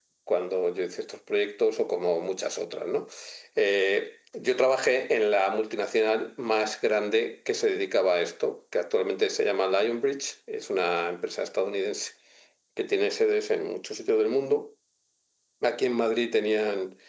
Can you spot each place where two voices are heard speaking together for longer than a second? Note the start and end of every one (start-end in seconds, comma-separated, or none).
none